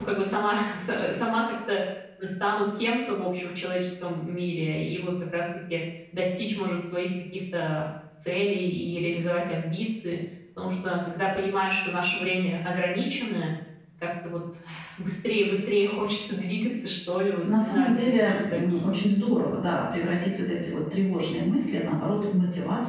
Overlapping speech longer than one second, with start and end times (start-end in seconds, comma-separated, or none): 17.4-19.0